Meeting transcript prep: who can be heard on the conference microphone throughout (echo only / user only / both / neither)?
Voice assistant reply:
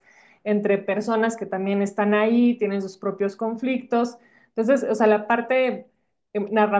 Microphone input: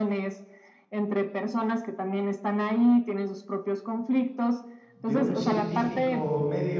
both